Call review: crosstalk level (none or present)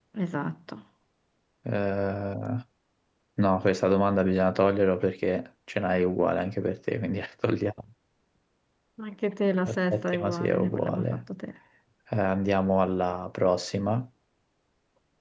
present